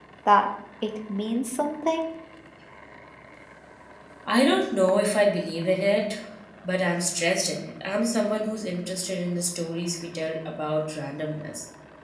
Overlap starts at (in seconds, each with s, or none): none